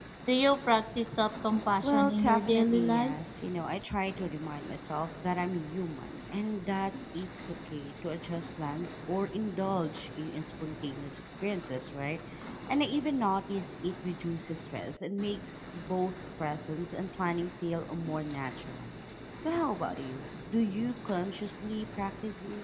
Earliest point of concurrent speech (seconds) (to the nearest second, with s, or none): 2 s